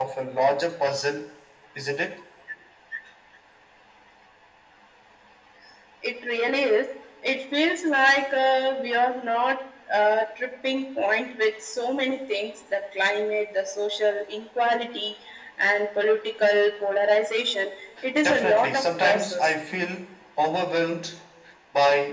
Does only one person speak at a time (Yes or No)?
No